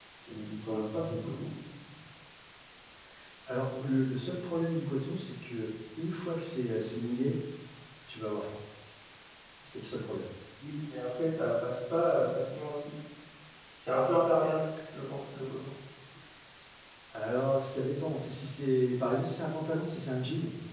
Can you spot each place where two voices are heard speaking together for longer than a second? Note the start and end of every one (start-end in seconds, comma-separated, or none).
none